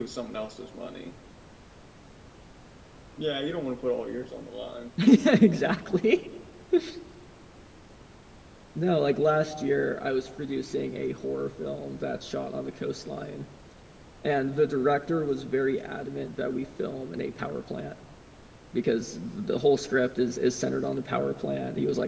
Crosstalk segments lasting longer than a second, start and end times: none

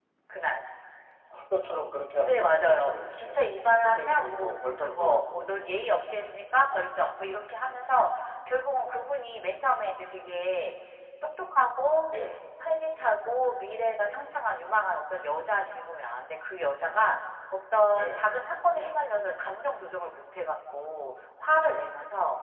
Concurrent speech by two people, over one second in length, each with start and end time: 2.2-3.4, 3.8-5.5

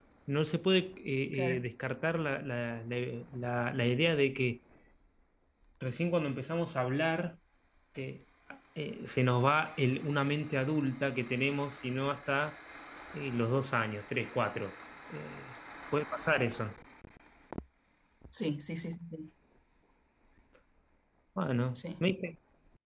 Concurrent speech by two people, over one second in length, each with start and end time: none

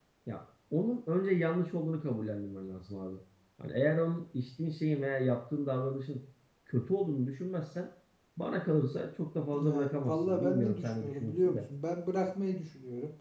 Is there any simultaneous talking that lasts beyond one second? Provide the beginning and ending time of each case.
9.6-11.6

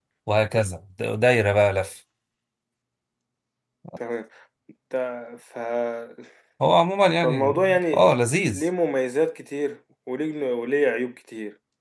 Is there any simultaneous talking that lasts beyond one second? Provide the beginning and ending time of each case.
7.2-8.6

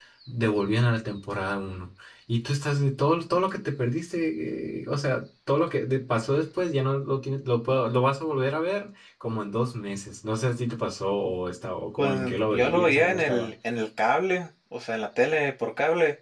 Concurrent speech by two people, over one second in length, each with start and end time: 12.0-13.5

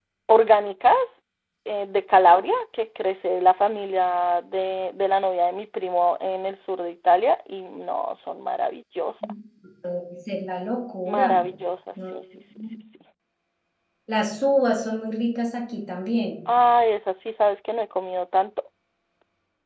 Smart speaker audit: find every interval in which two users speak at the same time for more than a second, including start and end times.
none

